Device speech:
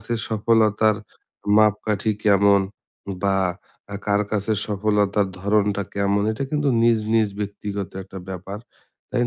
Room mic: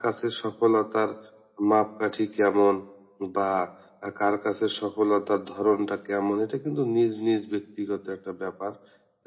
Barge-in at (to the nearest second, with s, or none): none